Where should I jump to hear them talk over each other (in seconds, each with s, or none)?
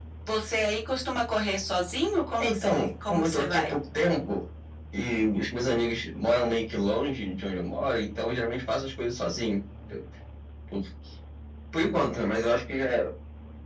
2.4 s